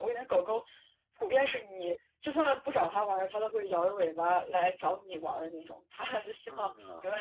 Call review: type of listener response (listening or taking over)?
listening